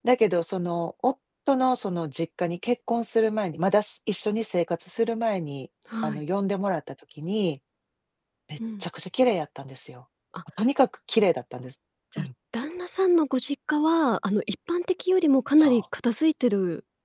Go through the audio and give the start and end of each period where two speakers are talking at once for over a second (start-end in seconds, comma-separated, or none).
none